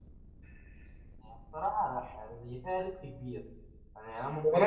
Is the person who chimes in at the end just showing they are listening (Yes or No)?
No